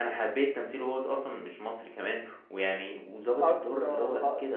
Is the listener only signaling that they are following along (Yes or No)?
No